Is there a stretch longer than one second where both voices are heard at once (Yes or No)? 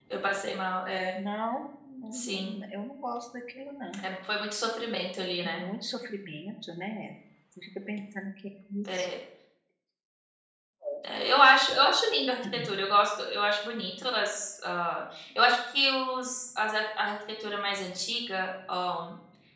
No